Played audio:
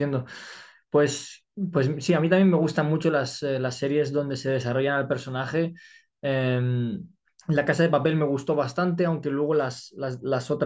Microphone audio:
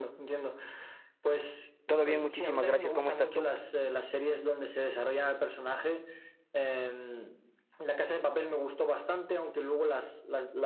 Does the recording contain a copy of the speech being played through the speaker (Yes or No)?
Yes